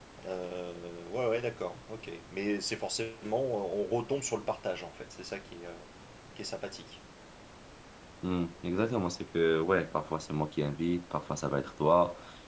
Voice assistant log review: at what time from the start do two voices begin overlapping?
none

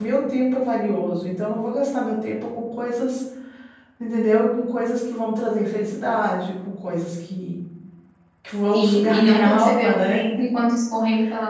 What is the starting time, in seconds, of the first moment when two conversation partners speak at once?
9 s

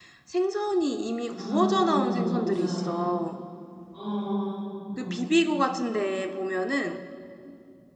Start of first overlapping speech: 1 s

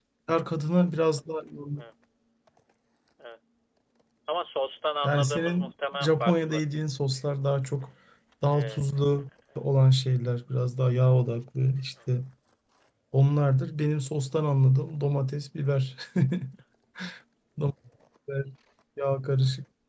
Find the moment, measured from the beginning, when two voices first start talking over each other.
5 s

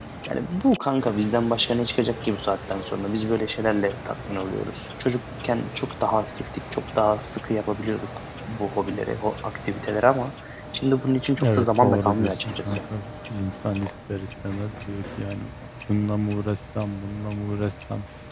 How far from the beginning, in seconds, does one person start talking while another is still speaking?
11 s

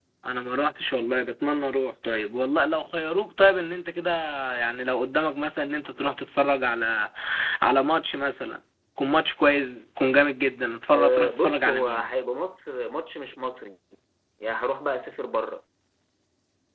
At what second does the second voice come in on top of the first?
11 s

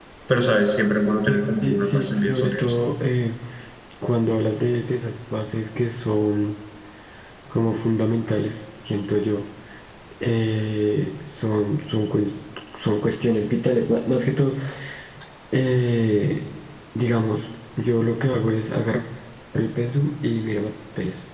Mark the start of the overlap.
1 s

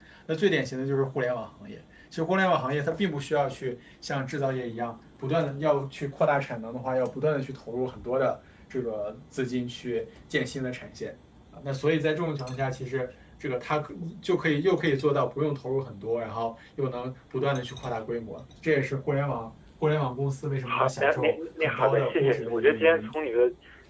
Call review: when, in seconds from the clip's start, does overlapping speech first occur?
21 s

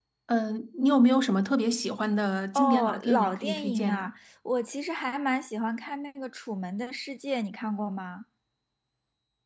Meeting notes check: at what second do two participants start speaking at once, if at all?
3 s

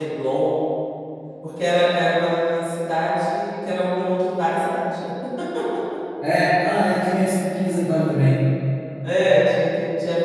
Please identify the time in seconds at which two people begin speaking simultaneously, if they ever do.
none

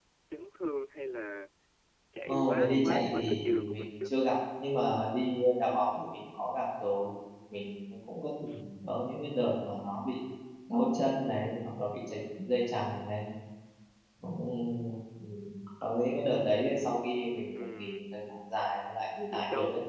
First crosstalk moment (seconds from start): 2 s

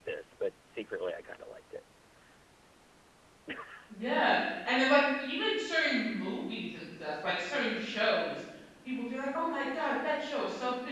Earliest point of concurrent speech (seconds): none

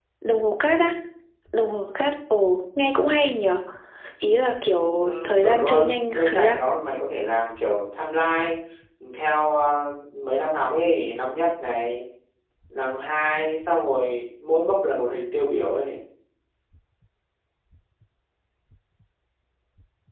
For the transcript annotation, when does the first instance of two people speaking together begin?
5 s

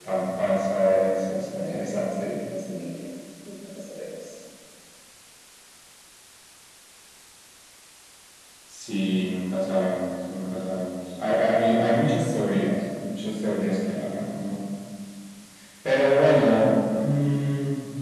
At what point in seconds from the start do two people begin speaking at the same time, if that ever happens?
1 s

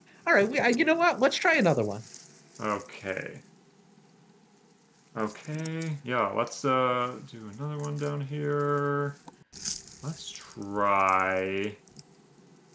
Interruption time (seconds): none

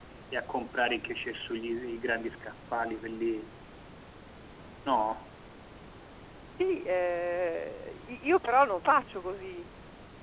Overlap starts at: none

